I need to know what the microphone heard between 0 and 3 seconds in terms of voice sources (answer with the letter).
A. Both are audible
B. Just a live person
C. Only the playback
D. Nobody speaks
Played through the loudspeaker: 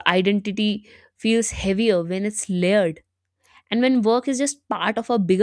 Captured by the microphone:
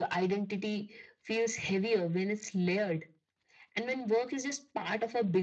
C